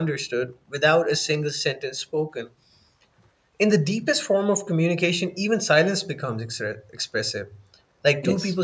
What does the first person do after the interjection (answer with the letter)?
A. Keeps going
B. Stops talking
A